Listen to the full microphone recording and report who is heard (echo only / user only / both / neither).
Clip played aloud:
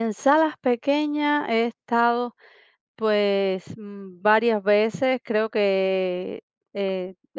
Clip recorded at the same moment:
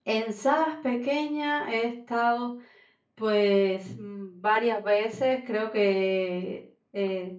echo only